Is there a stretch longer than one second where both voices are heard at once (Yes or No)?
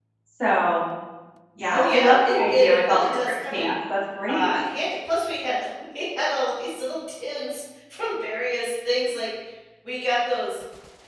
Yes